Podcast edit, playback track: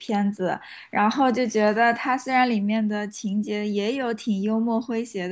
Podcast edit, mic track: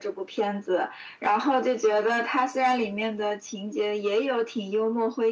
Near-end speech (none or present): none